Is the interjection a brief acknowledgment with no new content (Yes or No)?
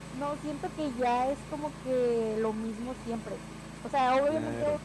Yes